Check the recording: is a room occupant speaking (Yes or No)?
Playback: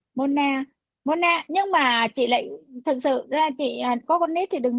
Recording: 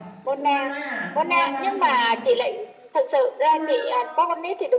Yes